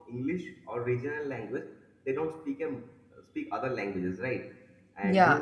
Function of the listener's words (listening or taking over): taking over